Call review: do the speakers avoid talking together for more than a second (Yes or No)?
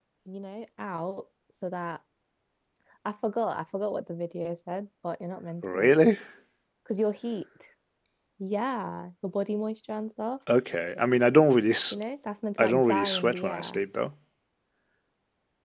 No